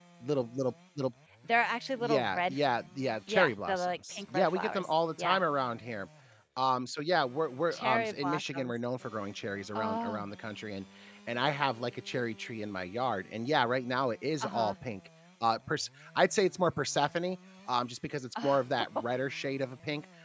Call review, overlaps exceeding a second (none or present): present